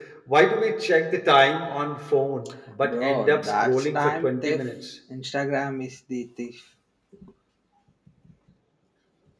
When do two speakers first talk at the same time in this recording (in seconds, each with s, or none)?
2.8 s